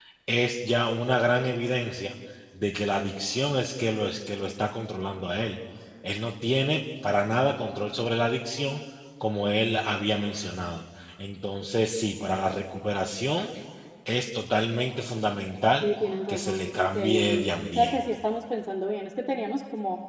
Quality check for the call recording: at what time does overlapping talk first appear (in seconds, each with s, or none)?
16.3 s